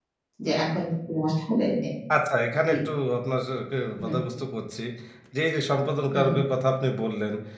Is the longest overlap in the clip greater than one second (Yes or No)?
No